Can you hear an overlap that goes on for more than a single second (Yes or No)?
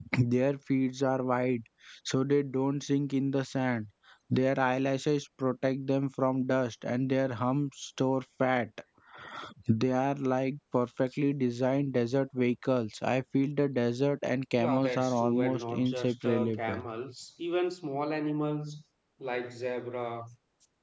Yes